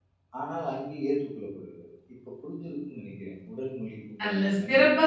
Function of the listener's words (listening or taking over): taking over